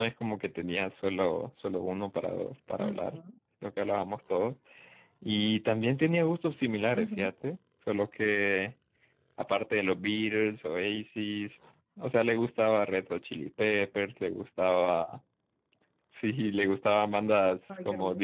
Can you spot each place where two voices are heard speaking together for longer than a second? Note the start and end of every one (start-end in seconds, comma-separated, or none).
none